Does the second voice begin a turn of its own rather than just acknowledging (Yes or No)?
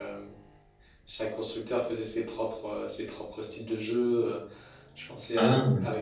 No